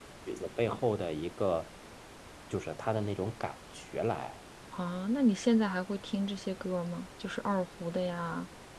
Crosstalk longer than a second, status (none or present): none